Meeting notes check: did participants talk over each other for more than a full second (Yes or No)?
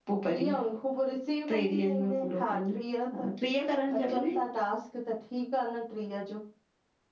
Yes